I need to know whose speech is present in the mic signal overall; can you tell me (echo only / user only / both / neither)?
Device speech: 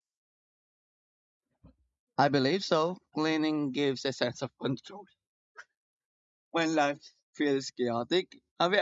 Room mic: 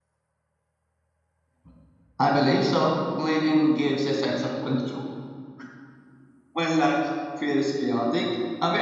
echo only